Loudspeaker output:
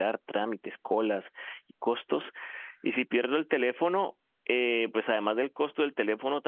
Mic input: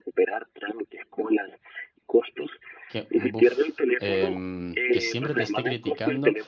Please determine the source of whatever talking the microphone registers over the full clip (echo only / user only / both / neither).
both